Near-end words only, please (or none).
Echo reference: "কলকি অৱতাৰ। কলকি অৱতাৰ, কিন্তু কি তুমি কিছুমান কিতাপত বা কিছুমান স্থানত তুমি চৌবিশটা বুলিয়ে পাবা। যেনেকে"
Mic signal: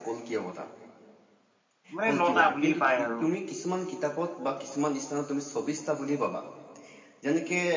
মানে নটা বুলি পাই আৰু।